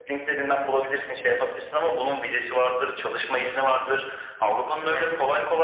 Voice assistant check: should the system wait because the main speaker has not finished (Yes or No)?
Yes